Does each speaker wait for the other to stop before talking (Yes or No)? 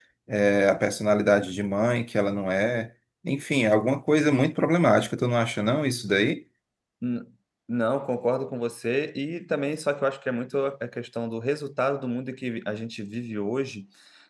Yes